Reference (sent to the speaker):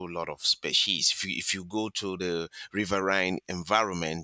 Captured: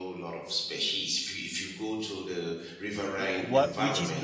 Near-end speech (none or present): present